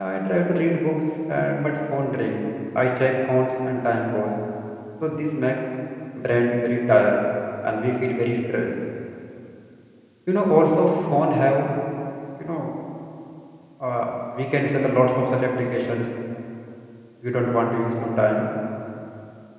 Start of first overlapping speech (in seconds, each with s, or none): none